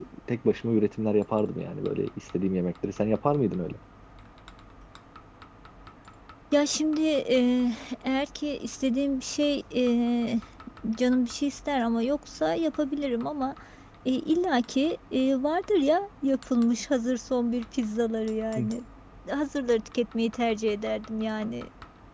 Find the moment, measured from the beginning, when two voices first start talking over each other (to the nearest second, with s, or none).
none